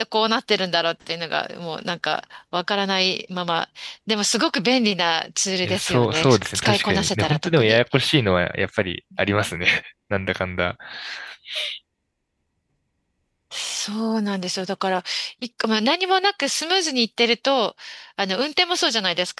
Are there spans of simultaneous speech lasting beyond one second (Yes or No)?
Yes